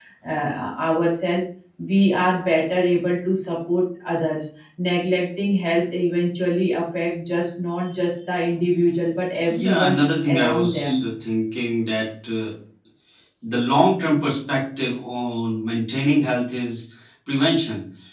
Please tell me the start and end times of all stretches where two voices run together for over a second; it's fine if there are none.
9.5-11.1

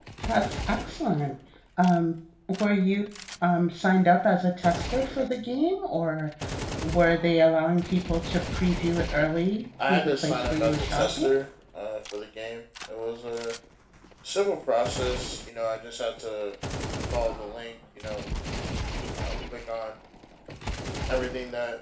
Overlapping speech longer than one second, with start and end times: 9.8-11.3

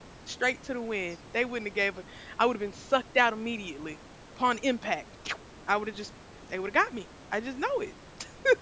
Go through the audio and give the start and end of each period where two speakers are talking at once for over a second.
none

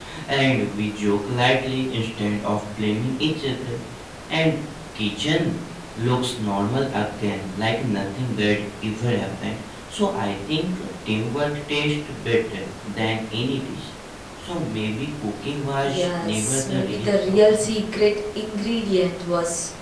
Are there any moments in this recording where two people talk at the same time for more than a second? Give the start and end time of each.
15.8-17.6

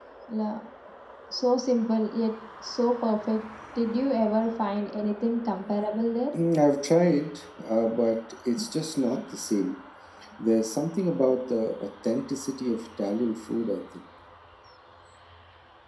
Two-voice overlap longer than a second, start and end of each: none

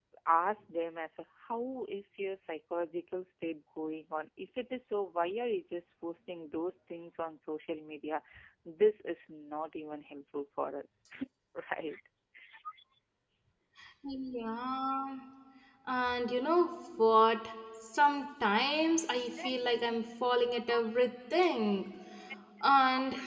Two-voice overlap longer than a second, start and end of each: none

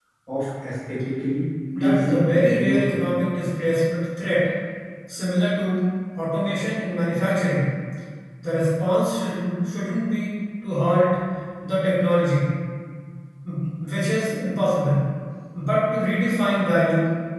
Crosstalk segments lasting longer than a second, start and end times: 1.8-3.1

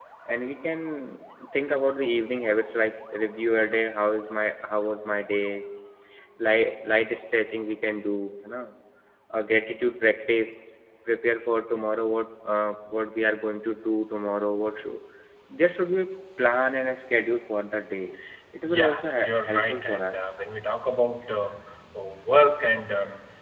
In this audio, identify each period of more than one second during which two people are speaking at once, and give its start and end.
18.6-20.1

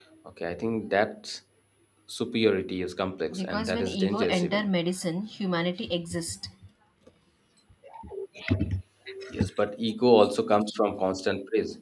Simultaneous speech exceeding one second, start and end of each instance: 3.3-4.7

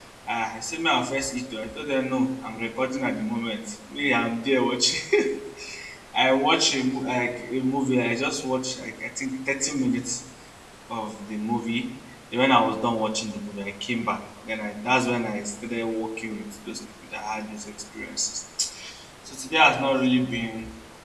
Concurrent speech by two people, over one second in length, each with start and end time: none

